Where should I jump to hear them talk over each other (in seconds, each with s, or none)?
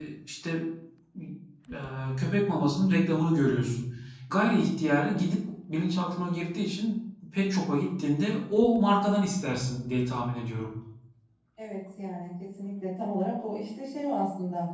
none